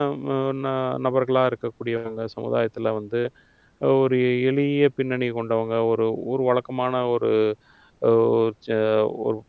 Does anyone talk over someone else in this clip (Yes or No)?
No